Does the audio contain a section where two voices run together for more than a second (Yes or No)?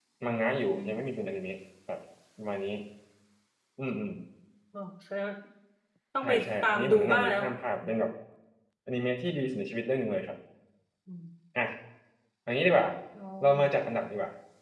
Yes